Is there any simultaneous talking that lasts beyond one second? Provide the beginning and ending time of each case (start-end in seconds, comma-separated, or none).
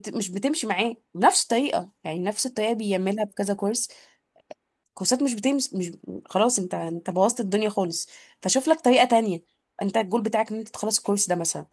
none